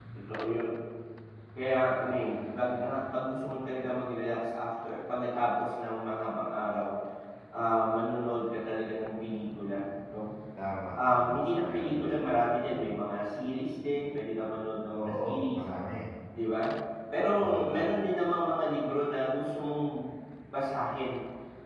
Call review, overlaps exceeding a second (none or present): present